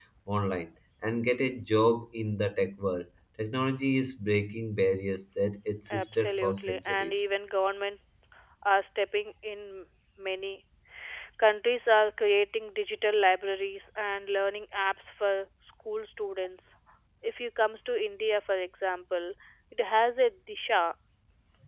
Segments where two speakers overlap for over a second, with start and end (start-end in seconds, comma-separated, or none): 5.9-7.1